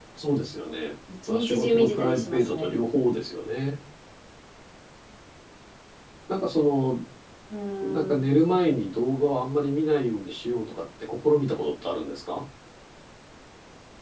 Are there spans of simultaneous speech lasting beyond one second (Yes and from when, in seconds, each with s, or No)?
Yes, from 1.3 s